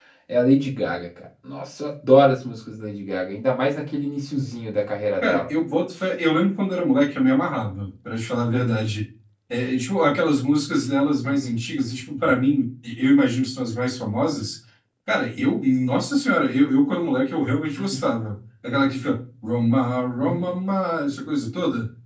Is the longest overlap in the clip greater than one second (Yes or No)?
No